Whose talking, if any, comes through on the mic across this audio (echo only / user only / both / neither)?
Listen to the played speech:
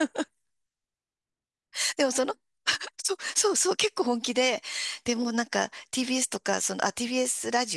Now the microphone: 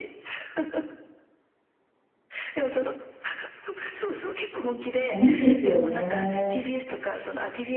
both